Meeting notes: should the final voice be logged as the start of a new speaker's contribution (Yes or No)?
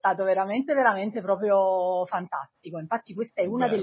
No